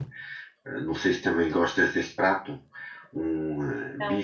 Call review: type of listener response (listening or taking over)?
listening